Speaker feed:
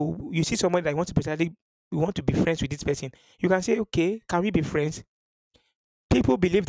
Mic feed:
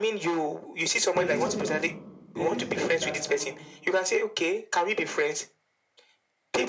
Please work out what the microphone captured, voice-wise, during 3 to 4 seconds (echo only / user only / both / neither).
both